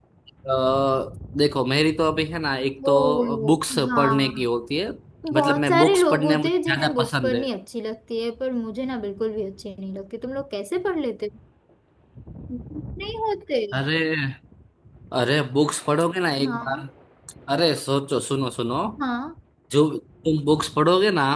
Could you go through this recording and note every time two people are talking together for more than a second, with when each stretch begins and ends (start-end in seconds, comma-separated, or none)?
2.9-4.4, 5.3-7.4